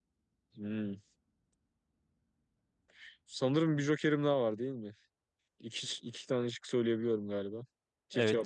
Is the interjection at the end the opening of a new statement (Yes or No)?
Yes